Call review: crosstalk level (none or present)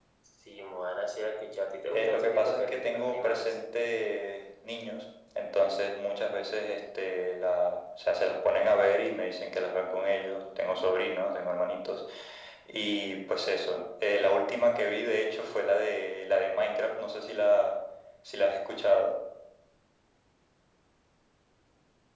present